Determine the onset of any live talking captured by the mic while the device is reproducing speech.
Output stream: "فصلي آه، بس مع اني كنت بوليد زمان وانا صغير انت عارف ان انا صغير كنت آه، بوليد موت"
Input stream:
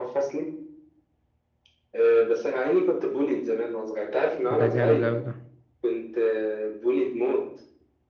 4.6 s

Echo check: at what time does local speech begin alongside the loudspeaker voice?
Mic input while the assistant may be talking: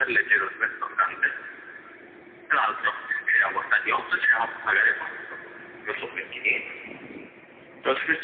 none

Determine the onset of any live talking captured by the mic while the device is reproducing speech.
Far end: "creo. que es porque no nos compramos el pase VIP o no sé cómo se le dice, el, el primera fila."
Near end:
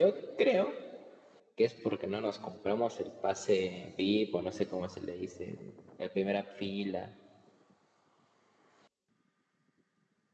none

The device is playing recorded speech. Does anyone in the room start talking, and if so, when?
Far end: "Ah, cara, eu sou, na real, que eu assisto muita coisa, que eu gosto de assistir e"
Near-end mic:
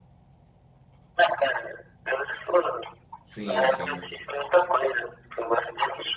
3.2 s

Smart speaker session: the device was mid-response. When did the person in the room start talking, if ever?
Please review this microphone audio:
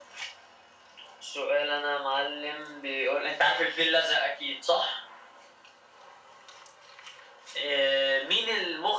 none

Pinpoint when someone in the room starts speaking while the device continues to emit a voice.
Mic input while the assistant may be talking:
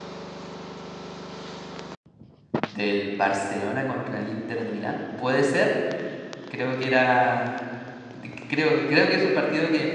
2.6 s

